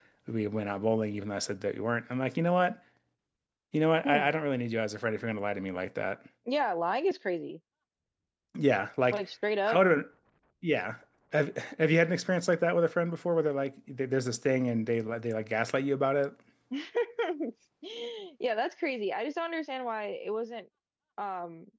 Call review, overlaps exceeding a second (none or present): none